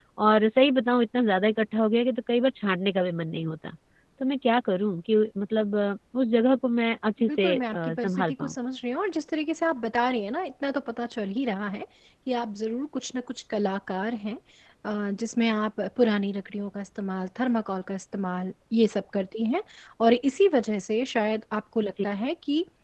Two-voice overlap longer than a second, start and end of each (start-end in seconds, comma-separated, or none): 7.3-8.5